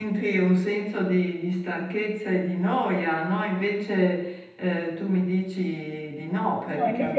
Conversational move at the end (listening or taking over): taking over